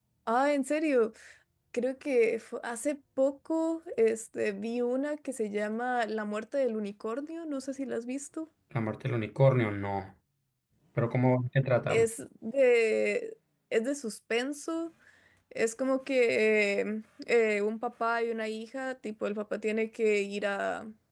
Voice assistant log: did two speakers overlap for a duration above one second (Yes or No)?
No